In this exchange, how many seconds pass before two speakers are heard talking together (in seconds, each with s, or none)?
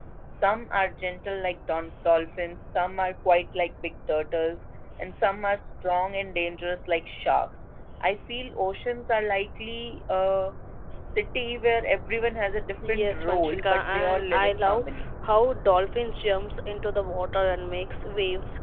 12.8 s